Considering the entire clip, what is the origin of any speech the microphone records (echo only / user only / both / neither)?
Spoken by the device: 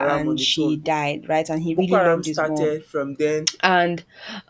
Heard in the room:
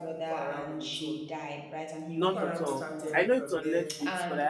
both